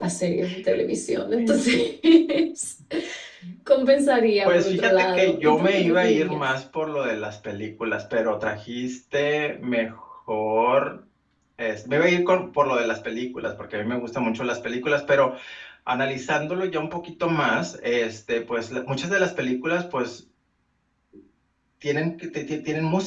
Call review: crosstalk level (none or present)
present